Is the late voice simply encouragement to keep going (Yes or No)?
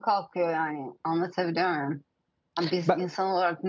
Yes